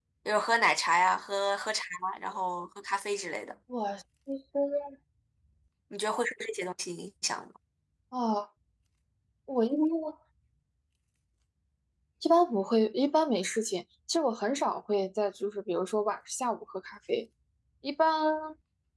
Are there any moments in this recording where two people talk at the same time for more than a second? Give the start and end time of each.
none

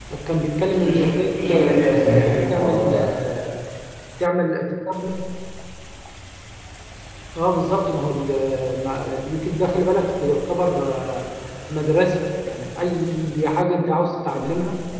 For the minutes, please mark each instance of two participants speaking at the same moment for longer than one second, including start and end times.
0.7-3.1

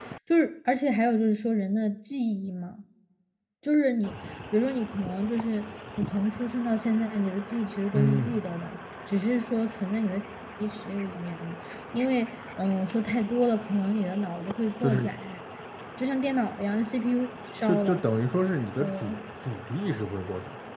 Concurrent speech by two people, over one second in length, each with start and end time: none

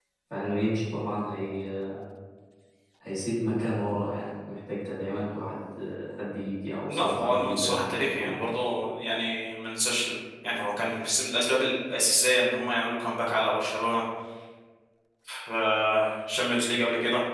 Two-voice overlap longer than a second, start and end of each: 6.9-8.4

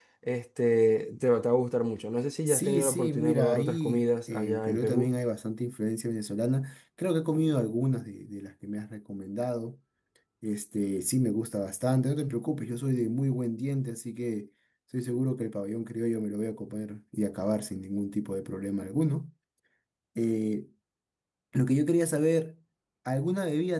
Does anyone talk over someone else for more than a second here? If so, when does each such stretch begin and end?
2.5-5.1

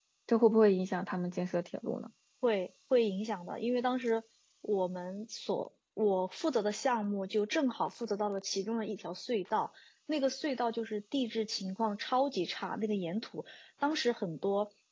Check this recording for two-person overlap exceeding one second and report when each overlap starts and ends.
none

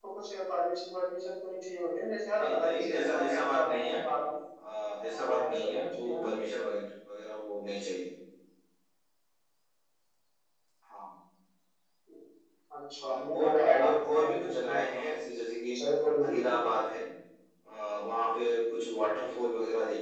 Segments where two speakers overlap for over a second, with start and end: 2.4-4.0, 5.1-6.3, 13.0-14.9

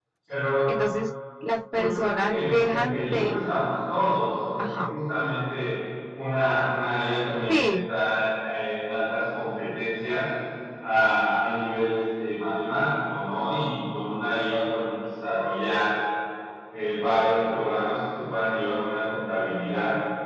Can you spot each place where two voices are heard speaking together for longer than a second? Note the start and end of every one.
1.7-3.4

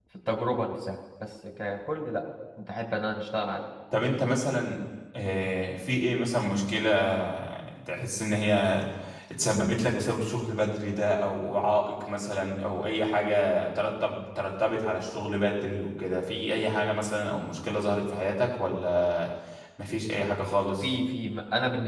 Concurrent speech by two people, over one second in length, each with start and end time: none

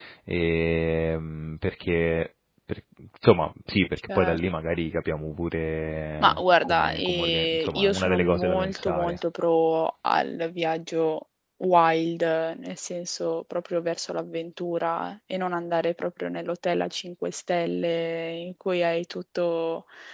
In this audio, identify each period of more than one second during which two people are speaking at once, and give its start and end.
6.2-9.2

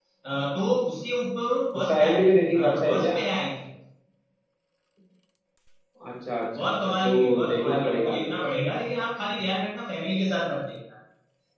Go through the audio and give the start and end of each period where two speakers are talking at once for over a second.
1.8-3.2, 6.6-8.4

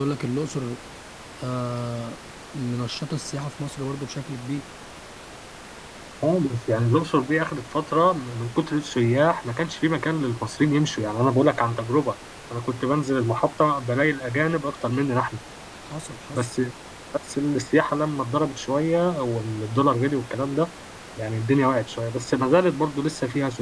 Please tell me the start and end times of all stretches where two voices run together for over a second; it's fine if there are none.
none

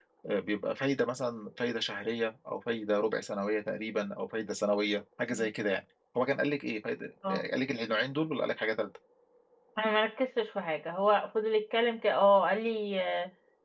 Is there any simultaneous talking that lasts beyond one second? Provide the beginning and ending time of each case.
none

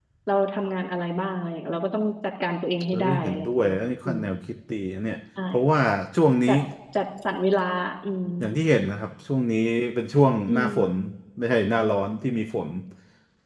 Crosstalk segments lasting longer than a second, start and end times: 2.9-4.2

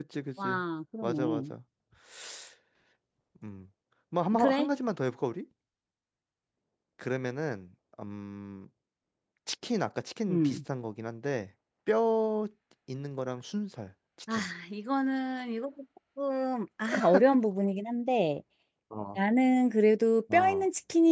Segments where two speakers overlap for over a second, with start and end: none

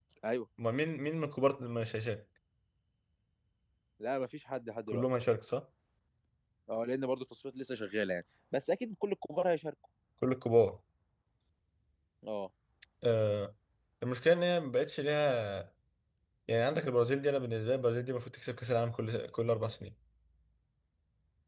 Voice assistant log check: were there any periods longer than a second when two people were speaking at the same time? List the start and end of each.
none

